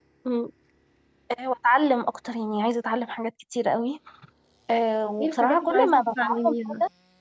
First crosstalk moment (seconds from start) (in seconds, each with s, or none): 5.2 s